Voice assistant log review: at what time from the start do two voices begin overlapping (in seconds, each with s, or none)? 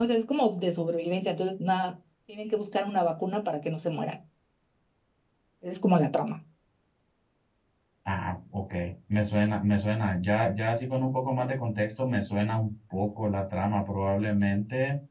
none